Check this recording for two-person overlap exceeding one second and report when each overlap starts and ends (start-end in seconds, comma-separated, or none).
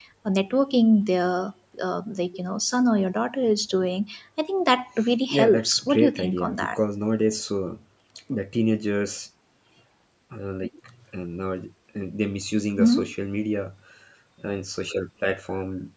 5.3-6.8